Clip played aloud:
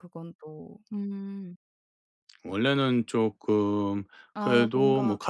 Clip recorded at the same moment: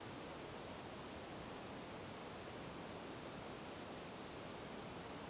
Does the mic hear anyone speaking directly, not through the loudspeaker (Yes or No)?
No